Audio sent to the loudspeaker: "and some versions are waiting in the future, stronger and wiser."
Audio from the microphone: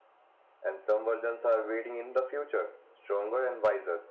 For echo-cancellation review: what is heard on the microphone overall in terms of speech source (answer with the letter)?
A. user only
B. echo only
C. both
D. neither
B